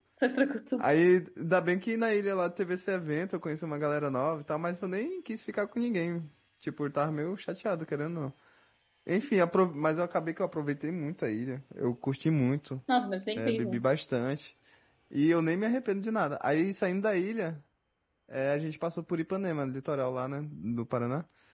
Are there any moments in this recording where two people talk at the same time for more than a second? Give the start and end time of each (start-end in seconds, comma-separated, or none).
none